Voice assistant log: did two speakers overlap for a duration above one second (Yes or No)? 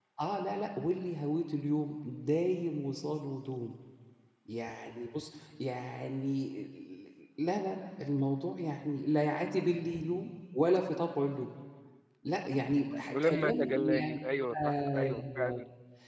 Yes